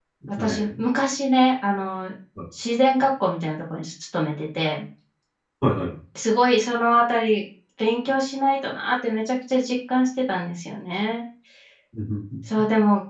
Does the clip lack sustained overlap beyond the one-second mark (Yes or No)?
Yes